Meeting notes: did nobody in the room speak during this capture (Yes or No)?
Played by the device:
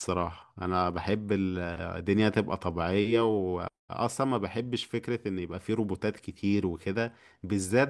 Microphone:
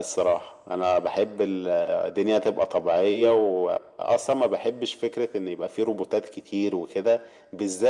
Yes